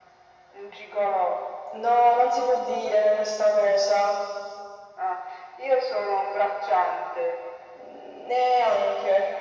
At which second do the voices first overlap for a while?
none

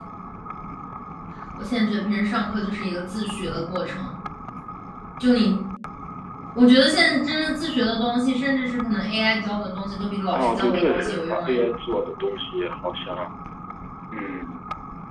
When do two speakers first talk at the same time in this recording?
10.3 s

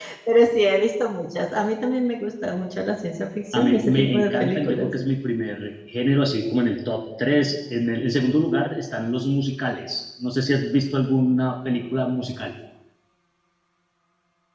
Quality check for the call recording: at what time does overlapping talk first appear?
3.5 s

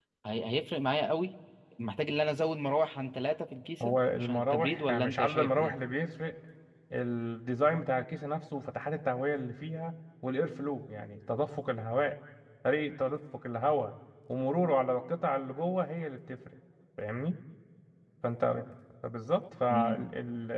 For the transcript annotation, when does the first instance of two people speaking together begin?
3.8 s

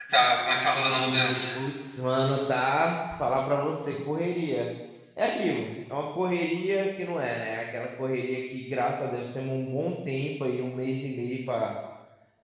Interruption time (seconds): none

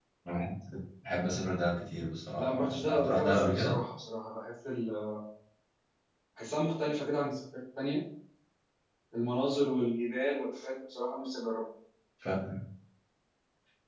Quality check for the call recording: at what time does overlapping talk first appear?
2.4 s

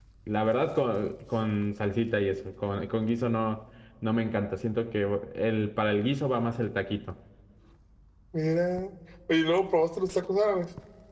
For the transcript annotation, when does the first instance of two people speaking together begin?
none

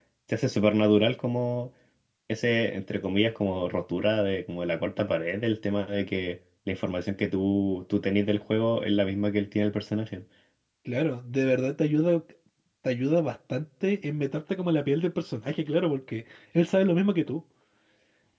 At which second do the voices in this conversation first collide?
none

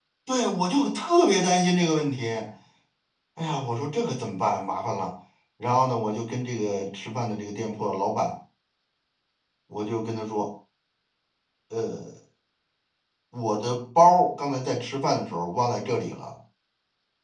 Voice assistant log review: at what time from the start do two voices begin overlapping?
none

